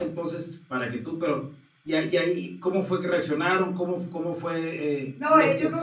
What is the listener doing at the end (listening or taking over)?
taking over